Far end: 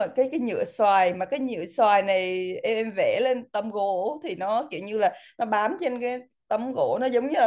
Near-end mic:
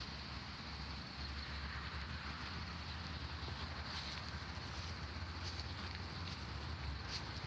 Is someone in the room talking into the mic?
No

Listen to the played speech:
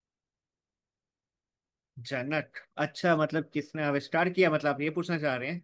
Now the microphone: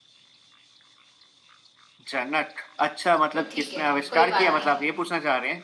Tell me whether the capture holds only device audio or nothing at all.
No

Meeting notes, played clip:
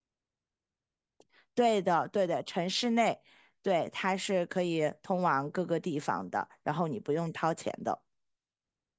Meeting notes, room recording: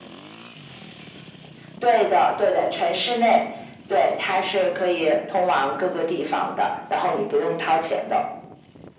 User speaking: No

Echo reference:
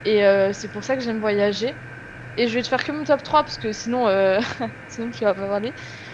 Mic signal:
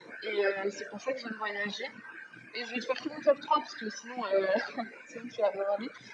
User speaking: No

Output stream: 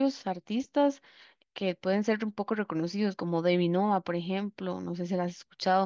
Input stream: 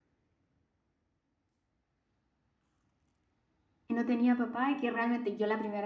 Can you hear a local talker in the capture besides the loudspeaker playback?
Yes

